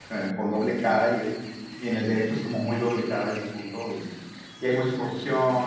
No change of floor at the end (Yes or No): Yes